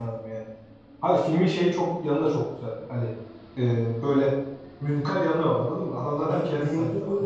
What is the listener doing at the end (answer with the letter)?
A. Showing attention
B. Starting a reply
B